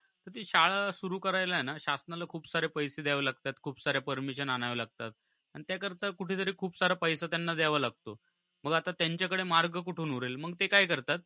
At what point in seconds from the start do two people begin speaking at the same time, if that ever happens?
none

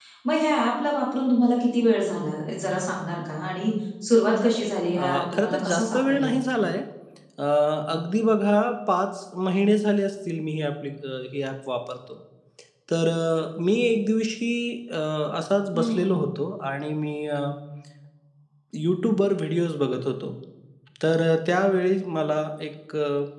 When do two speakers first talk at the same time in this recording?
5.0 s

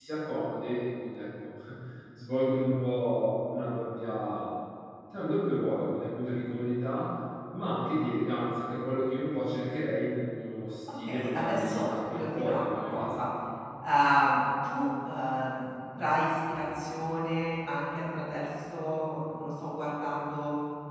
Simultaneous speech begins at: 11.1 s

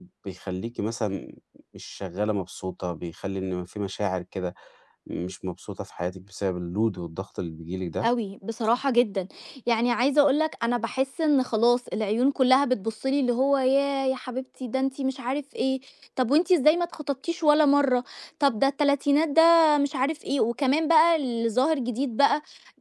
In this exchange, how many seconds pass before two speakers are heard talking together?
none

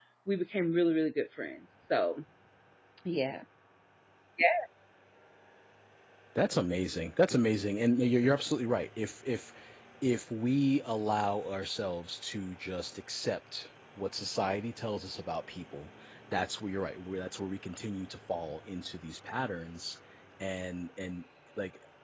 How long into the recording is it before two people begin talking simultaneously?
none

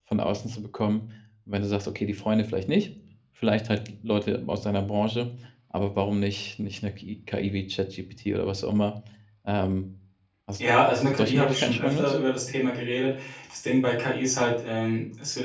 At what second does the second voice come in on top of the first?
10.9 s

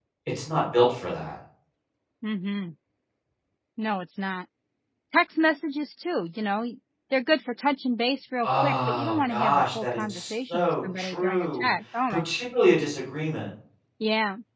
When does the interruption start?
8.4 s

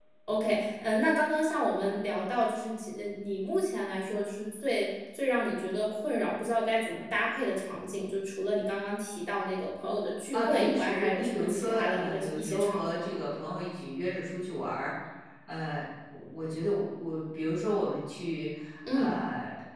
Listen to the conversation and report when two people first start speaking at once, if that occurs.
10.3 s

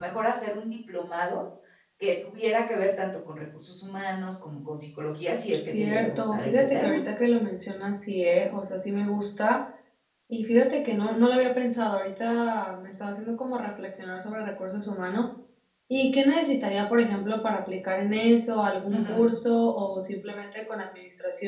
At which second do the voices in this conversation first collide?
5.6 s

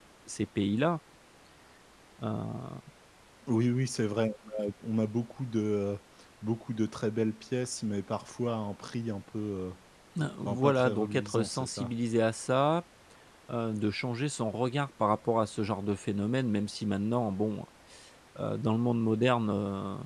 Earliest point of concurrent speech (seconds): 10.4 s

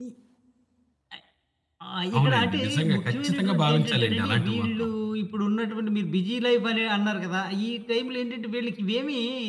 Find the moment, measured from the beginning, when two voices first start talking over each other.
2.2 s

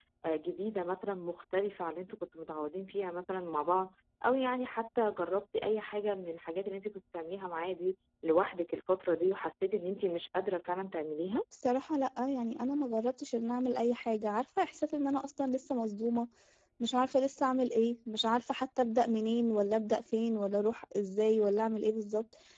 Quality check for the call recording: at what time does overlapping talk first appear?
none

